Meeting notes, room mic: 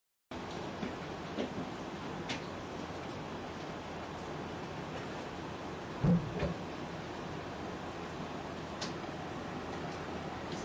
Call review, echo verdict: none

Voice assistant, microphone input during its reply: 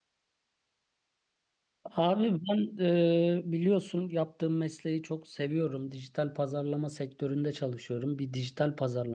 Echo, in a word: none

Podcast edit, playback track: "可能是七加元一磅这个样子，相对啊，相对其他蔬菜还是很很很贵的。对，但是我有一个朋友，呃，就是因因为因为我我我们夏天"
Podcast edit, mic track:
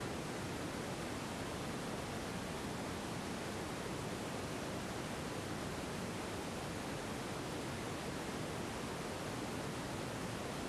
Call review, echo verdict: none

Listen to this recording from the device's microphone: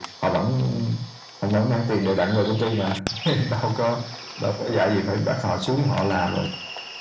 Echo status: present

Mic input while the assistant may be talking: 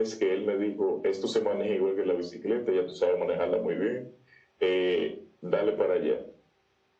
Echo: present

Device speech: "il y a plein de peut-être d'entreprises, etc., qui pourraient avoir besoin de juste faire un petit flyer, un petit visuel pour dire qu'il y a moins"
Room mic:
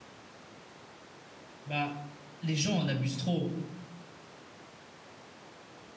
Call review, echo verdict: none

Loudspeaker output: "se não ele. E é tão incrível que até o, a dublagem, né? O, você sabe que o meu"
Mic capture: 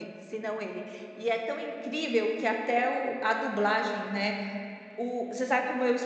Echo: present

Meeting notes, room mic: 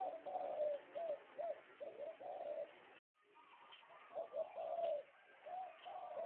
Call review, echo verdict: none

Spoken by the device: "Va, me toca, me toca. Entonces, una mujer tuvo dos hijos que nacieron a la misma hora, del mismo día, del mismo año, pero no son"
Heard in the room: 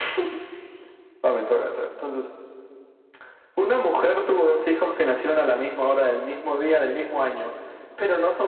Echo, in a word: present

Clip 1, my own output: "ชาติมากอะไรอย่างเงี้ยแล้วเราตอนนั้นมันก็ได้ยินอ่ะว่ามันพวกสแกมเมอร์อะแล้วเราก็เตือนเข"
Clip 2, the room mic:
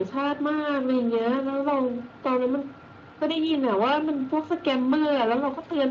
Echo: present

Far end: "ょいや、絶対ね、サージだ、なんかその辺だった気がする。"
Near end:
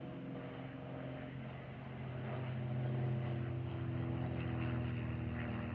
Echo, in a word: none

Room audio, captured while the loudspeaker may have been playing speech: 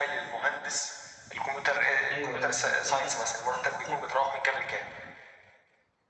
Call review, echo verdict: present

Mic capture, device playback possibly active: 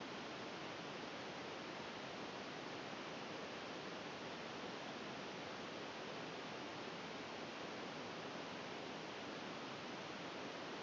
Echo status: none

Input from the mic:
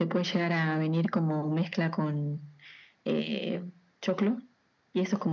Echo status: present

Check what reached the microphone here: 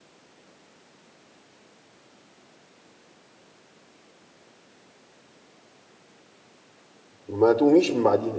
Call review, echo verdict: none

